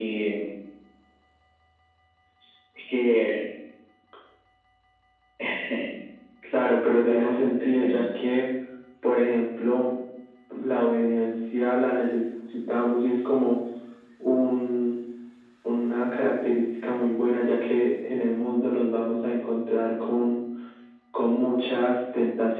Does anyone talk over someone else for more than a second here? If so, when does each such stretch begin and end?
6.8-8.0

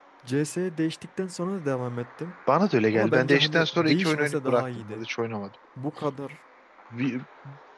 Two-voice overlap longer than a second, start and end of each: 2.9-5.0

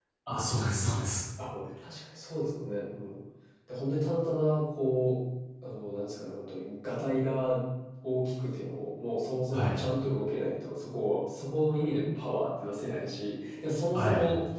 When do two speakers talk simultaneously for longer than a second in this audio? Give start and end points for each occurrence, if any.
none

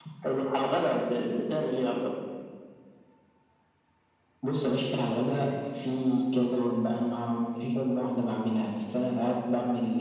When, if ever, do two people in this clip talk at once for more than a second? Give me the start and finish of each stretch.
none

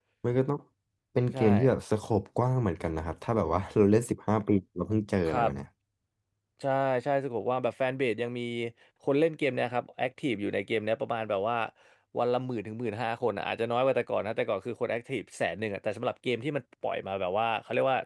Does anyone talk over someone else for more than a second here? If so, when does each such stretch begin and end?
none

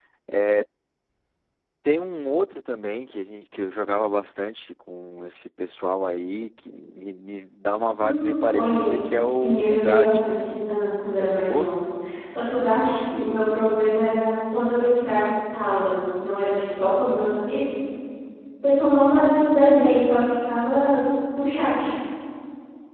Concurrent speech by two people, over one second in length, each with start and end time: 8.0-10.2

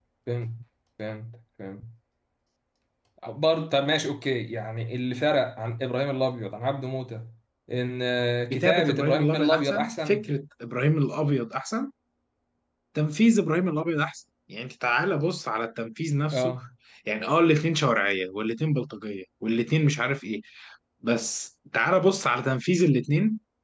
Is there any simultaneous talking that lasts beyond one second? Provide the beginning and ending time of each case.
8.5-10.3

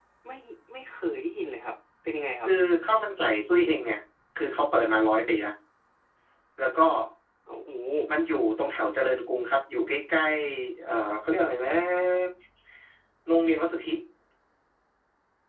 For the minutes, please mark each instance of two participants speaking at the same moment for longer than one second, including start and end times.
none

